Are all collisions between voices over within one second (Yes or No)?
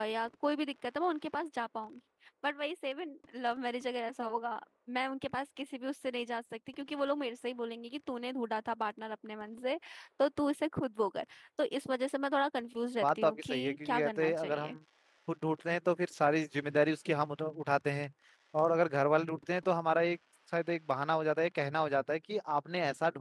No